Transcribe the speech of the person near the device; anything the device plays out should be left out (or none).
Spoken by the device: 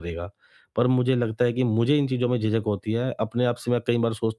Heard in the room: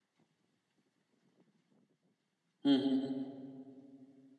हुँ, हुँ, हुँ, हुँ,